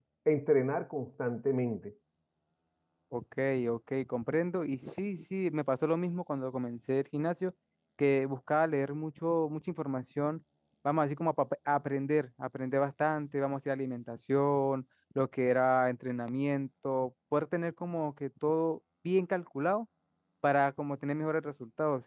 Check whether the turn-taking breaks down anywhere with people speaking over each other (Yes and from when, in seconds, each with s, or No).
No